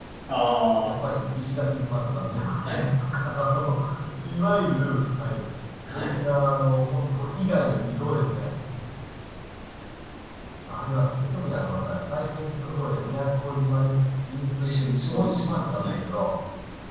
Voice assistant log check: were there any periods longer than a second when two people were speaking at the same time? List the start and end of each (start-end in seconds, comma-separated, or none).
14.6-16.0